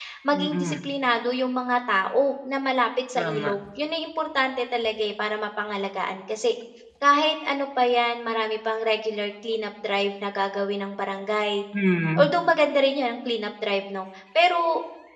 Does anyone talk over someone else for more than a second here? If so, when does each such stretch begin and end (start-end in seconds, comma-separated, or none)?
none